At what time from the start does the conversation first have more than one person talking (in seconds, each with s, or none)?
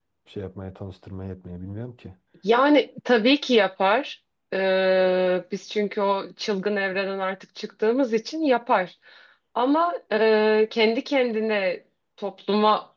none